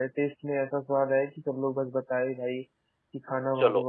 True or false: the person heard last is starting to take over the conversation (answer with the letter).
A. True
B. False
A